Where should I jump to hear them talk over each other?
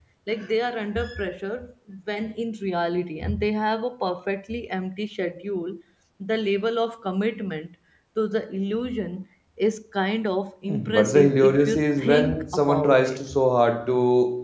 11 s

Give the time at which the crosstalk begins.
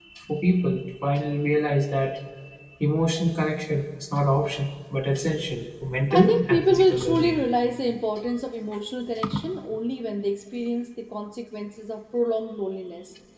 6 s

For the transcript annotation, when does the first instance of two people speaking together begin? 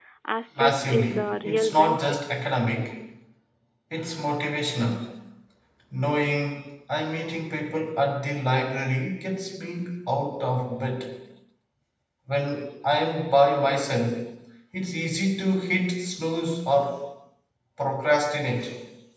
1 s

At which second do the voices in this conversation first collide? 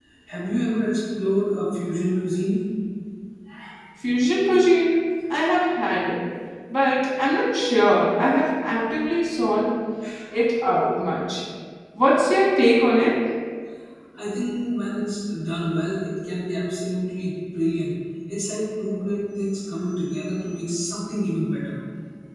none

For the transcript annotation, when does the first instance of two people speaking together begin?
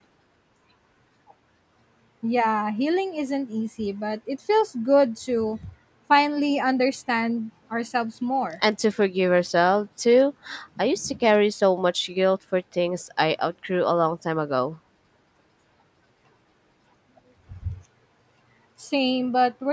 none

